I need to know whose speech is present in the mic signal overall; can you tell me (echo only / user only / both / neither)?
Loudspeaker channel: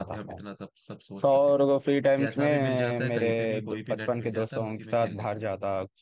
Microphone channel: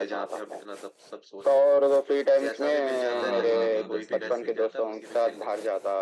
both